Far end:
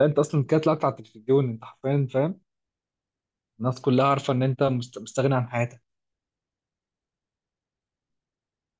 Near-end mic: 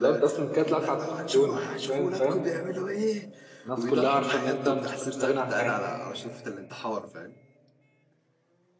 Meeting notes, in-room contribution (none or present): present